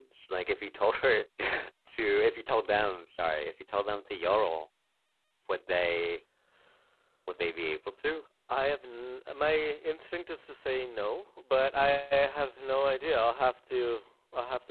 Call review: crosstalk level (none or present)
none